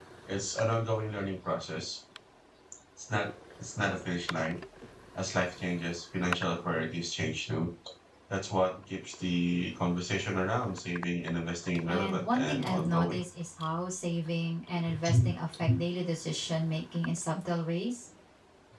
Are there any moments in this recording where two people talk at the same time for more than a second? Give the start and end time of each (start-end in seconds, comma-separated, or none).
11.9-13.2